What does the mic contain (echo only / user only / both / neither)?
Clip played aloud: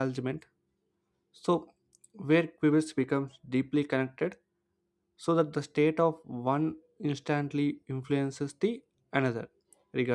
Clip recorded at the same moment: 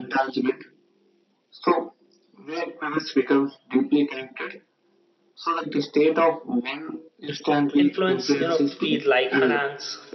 both